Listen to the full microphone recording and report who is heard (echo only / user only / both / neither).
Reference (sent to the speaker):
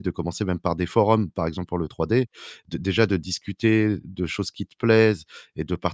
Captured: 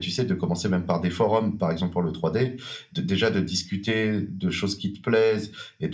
echo only